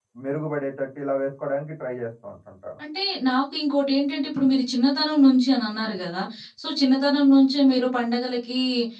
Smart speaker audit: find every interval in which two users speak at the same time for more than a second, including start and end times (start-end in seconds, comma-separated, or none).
none